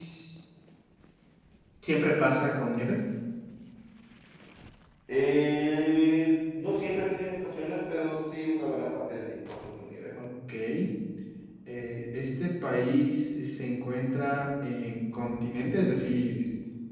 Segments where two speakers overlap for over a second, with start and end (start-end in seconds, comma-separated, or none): none